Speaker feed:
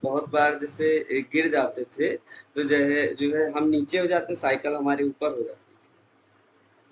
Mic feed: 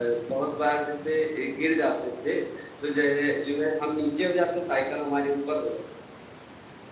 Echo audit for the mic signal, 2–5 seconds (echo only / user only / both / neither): echo only